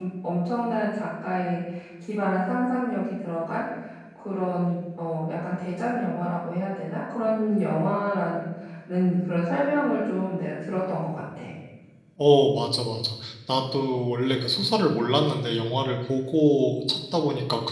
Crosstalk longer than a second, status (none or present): none